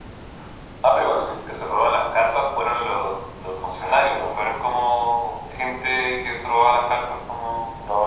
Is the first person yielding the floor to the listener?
Yes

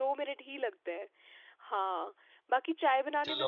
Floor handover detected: Yes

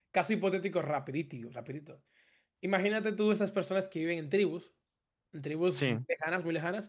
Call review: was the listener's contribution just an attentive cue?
Yes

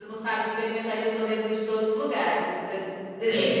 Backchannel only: No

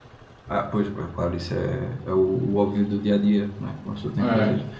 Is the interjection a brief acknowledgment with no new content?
Yes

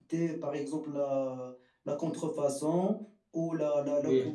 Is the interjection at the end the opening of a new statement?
No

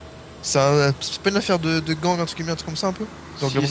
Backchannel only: No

